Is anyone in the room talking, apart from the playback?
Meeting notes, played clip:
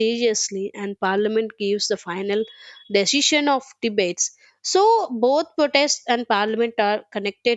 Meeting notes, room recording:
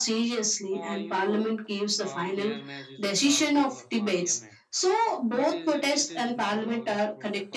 Yes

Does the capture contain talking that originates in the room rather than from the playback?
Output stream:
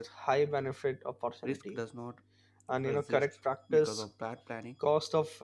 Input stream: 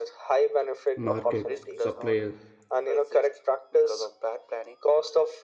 Yes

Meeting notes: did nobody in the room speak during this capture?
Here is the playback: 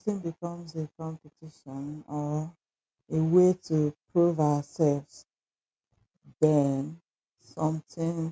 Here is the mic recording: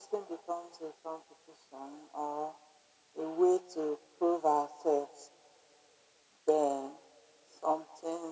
Yes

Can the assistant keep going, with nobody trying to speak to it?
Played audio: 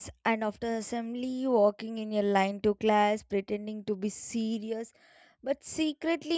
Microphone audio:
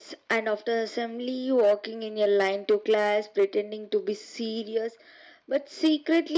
Yes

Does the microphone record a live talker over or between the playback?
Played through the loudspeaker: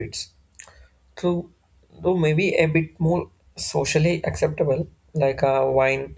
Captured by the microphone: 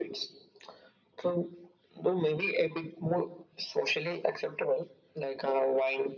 No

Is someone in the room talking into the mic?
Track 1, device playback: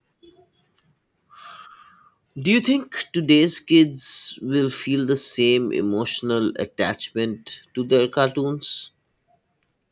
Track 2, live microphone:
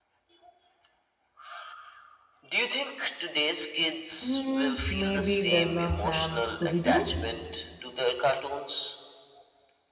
Yes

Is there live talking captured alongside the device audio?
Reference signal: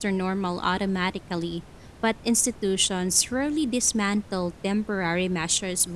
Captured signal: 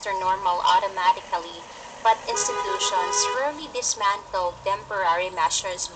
No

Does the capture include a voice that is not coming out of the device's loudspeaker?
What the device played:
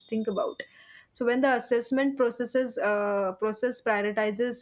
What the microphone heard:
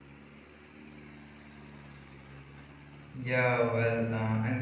Yes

